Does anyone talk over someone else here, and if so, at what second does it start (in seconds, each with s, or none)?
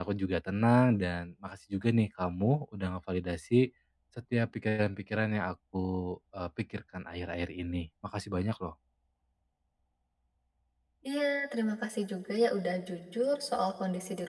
none